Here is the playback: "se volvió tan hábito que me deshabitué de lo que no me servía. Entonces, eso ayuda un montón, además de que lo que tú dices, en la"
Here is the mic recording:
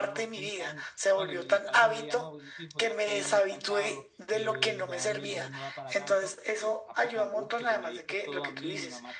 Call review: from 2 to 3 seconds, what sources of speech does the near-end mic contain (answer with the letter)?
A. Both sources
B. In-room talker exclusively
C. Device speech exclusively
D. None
A